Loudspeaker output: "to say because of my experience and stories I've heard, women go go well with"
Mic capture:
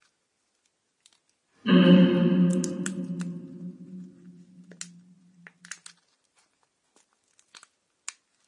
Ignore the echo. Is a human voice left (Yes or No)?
Yes